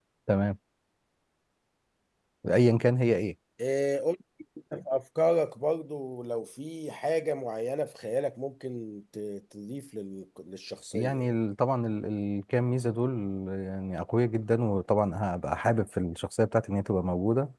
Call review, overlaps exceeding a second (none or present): none